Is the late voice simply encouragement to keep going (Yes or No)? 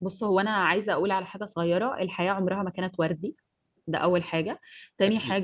Yes